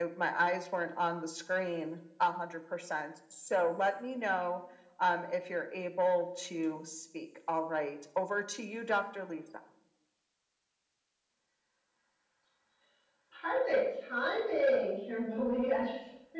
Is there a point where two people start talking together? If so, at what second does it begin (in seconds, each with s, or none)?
none